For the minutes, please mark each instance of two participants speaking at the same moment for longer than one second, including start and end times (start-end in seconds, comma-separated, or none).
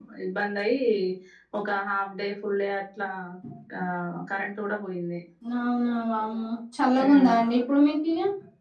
none